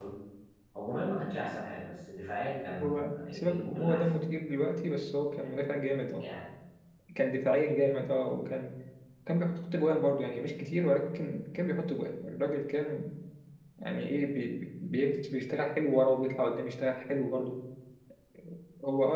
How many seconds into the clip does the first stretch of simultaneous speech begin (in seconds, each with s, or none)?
2.8 s